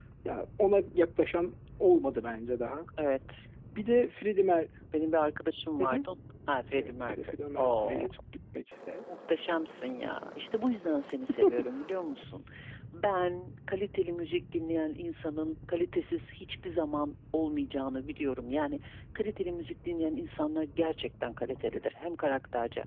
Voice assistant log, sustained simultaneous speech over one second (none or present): present